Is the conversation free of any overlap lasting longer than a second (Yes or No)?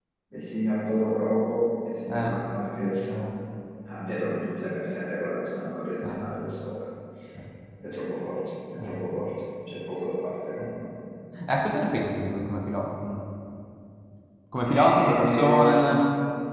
No